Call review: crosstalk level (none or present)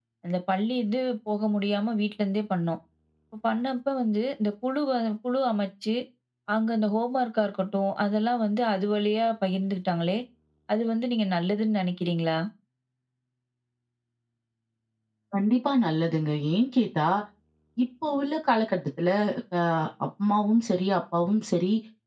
none